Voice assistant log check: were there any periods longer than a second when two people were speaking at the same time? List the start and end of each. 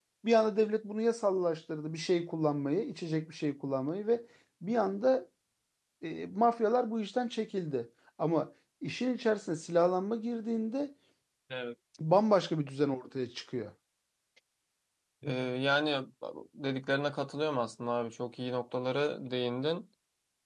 none

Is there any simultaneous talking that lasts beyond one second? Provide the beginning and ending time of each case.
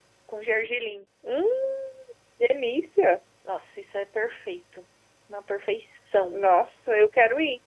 none

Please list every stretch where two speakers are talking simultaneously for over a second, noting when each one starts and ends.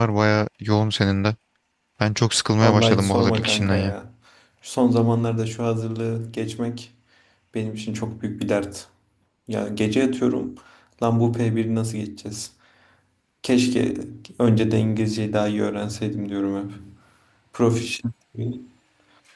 2.6-3.9

